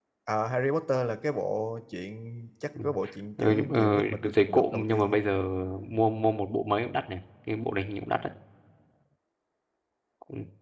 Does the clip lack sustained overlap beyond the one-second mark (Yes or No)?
No